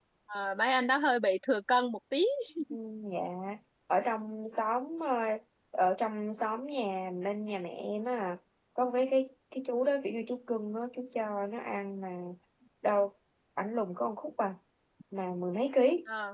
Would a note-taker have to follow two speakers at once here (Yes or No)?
No